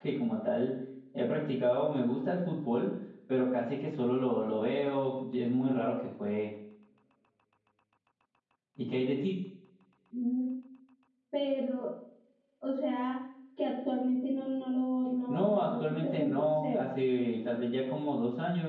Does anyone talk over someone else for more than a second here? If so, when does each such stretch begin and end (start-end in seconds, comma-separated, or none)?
15.3-16.8